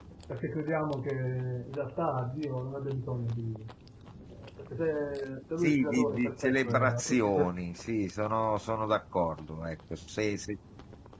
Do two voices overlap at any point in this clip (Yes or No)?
Yes